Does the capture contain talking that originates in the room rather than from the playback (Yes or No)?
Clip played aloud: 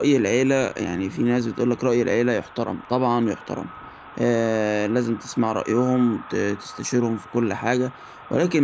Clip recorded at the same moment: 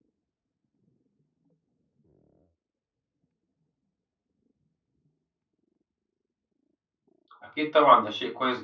Yes